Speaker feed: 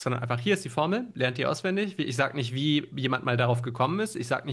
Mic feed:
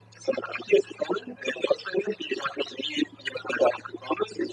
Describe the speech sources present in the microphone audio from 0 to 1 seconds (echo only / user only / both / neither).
echo only